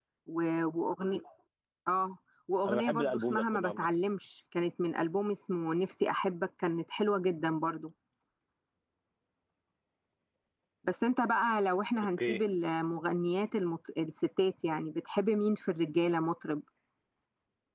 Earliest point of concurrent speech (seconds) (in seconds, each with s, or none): 2.7 s